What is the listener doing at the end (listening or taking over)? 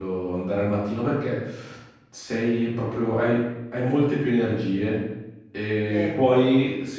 listening